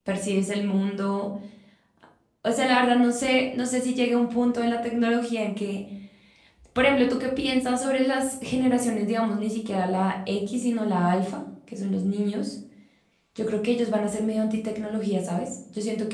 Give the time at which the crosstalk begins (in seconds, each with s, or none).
none